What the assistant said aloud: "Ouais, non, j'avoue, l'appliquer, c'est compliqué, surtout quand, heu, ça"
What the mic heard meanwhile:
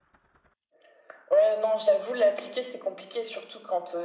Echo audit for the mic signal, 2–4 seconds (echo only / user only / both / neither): echo only